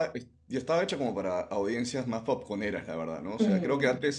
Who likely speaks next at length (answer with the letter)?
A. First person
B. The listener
A